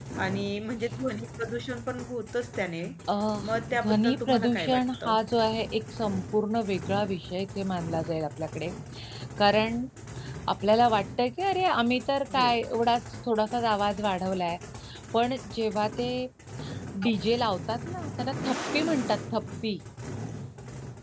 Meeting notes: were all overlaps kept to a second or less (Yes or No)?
No